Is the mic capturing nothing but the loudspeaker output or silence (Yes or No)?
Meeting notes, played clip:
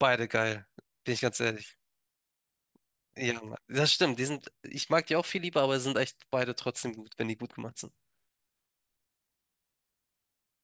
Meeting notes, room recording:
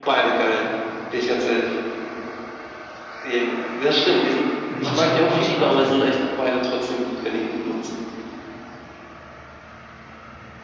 No